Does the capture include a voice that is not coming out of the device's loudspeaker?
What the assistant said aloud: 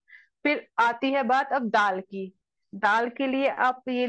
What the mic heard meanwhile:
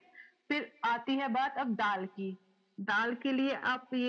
No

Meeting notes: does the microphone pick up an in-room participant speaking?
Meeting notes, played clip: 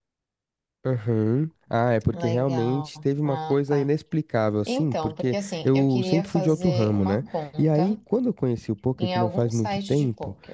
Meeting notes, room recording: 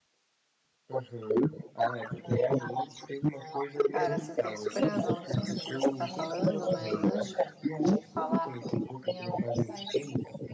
Yes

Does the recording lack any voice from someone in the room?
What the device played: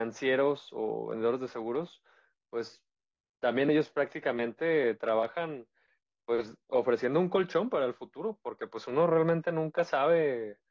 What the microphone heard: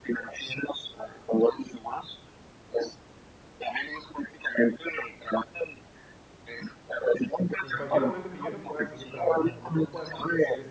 No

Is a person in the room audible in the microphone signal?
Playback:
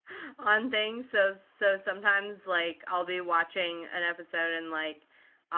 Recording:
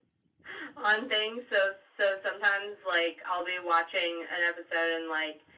No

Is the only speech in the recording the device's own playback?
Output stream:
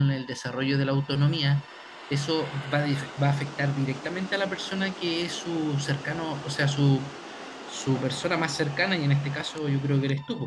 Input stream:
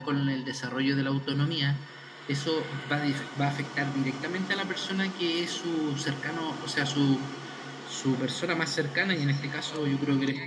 No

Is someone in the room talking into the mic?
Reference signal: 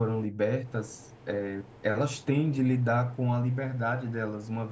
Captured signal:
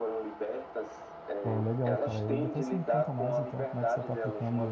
Yes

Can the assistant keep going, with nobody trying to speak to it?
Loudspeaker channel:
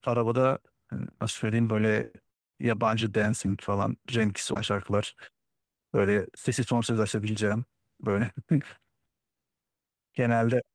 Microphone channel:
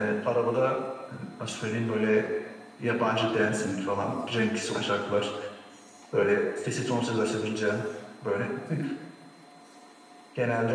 Yes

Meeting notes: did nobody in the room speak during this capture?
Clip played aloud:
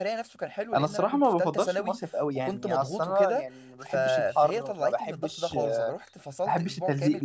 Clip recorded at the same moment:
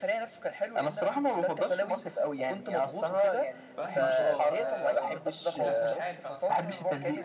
No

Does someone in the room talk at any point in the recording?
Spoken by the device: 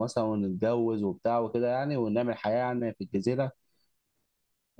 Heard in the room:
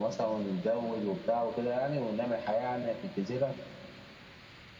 No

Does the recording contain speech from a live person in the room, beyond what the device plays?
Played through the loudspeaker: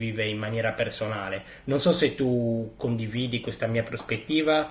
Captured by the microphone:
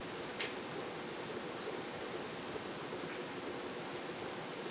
No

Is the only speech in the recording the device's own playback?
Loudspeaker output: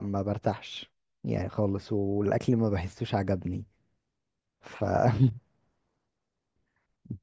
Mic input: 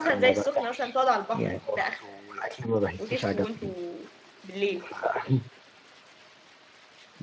No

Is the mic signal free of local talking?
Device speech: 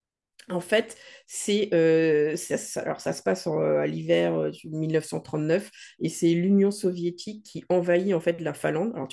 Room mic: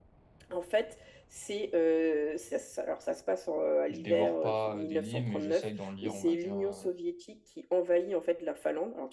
No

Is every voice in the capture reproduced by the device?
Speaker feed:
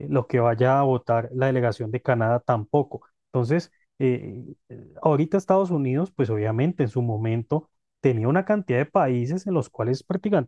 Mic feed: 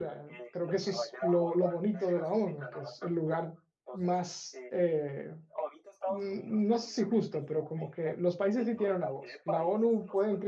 No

